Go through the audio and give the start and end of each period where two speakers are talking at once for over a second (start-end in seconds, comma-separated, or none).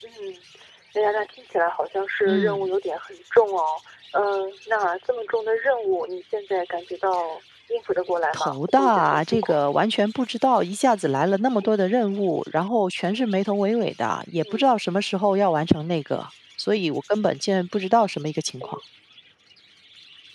8.3-9.6